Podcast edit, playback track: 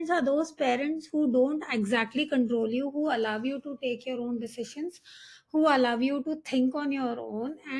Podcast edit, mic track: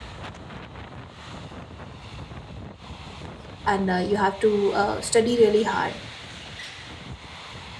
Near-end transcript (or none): and uh, you have to uh, study really hard